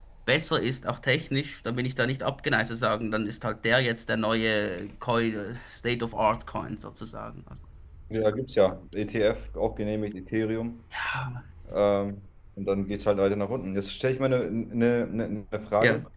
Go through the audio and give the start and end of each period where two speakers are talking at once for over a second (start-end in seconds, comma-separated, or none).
none